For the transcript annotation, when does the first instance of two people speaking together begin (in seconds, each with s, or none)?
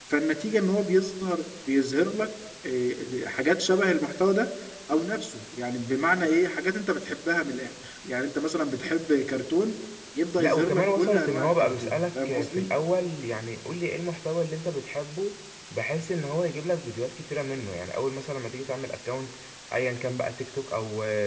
10.4 s